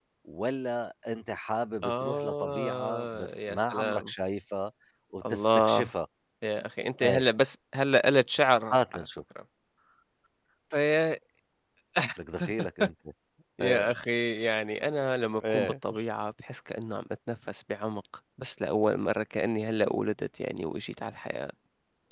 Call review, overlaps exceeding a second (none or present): present